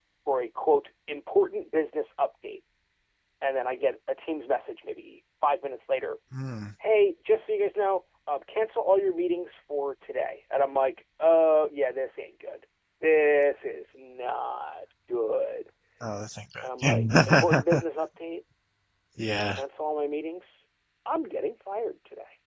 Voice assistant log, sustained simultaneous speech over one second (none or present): present